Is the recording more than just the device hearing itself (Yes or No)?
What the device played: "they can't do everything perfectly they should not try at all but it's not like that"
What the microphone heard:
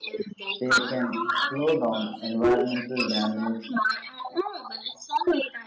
Yes